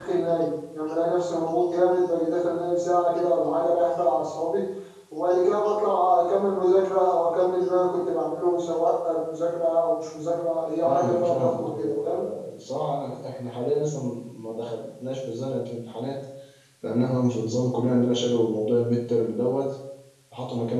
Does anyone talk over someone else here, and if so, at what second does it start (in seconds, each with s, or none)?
10.8 s